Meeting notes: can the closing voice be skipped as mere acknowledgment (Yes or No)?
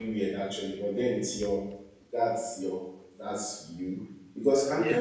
Yes